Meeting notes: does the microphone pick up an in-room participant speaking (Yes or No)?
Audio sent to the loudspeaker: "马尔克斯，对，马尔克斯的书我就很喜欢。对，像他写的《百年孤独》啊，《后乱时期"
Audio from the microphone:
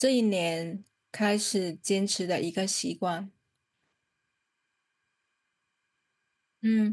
Yes